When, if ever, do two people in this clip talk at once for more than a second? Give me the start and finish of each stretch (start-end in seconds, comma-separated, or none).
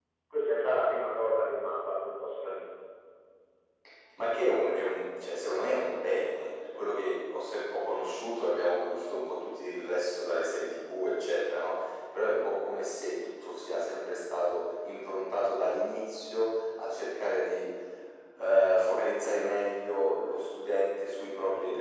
none